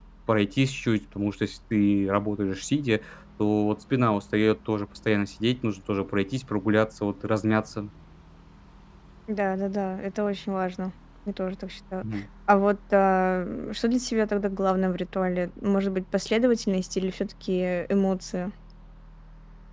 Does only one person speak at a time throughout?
Yes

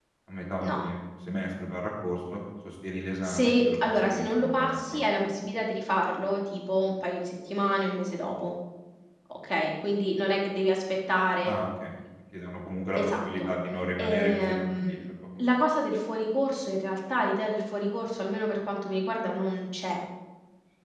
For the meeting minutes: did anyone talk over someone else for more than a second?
Yes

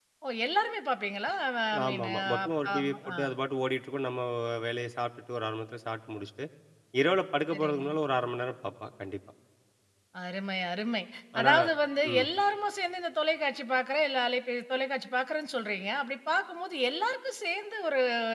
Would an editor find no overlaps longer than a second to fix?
No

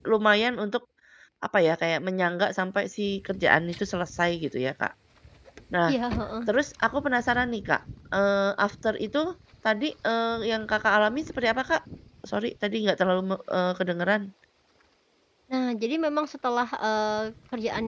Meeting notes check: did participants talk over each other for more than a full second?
No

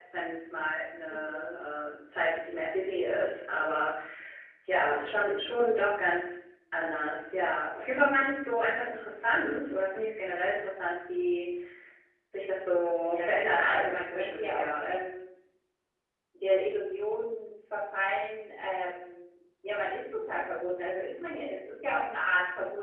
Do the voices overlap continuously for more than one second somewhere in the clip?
Yes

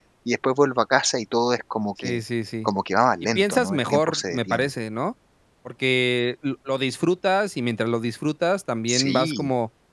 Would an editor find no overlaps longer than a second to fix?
No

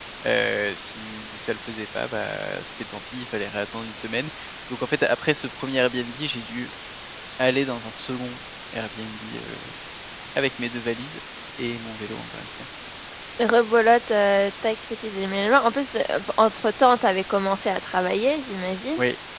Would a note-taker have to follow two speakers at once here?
No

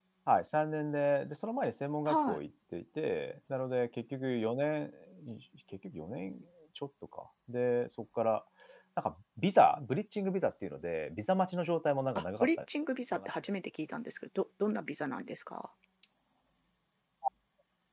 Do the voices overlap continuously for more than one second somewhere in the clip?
No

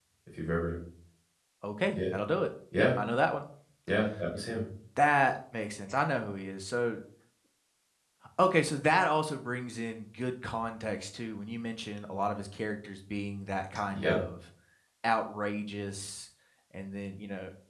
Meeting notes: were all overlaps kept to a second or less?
Yes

